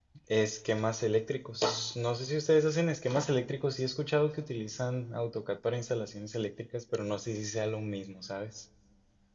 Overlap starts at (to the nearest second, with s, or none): none